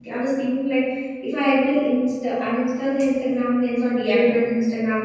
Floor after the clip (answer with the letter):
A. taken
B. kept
B